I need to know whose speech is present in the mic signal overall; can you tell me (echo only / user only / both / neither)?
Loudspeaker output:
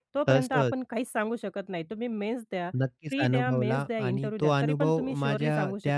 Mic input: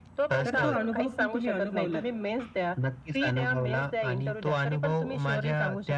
both